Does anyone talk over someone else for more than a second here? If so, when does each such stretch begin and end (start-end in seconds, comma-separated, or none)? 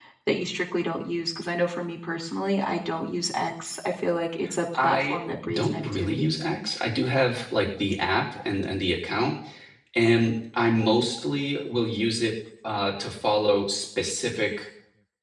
4.8-6.3